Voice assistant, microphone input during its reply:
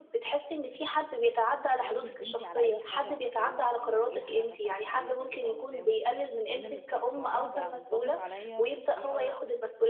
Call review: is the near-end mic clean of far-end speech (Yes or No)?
No